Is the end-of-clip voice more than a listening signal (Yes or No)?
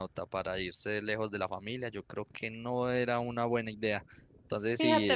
Yes